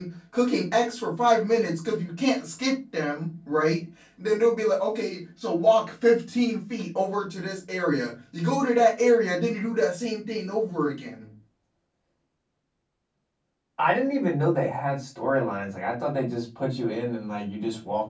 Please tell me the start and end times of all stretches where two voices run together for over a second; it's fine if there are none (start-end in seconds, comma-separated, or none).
none